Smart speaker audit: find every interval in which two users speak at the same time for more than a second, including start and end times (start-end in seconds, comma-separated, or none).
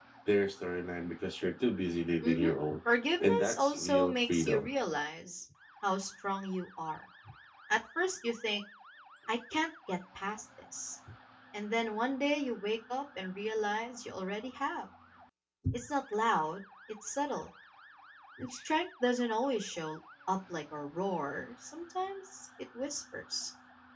3.2-4.7